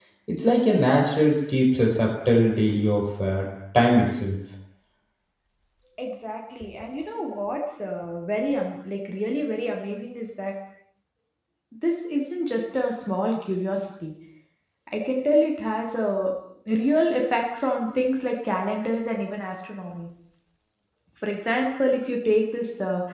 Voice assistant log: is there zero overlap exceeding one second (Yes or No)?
Yes